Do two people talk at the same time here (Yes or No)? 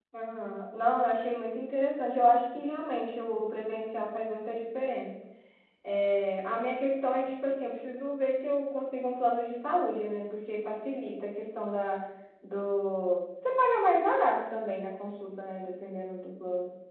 No